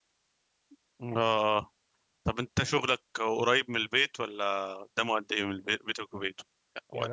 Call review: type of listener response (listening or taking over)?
taking over